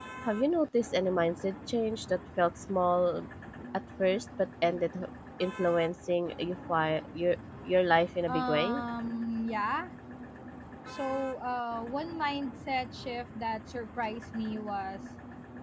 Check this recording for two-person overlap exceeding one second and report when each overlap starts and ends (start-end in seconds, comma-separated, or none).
none